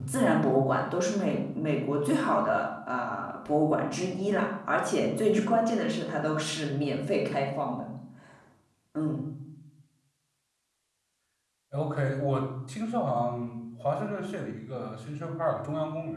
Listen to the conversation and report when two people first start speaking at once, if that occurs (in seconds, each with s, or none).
none